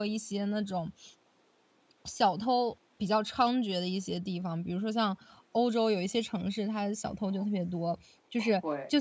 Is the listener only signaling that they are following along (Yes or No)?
Yes